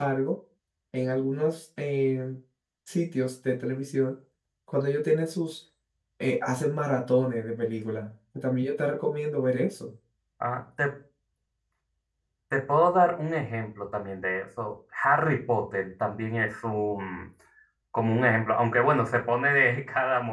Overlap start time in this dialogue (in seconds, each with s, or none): none